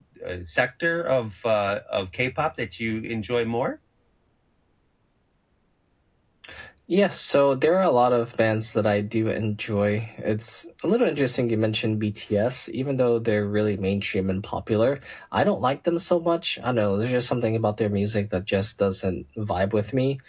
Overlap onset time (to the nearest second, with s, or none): none